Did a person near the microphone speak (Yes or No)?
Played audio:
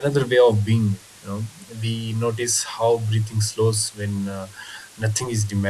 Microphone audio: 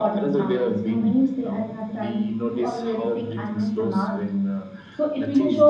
Yes